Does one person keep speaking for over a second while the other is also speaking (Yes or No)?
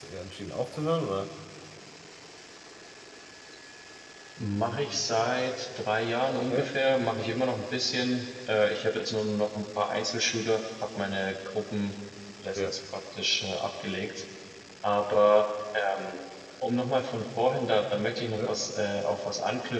No